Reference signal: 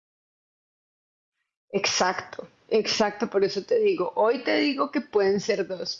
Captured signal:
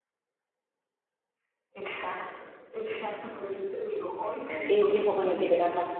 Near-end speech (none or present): present